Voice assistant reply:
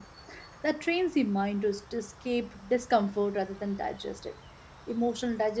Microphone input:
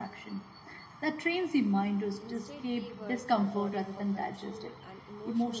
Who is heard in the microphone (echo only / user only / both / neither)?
both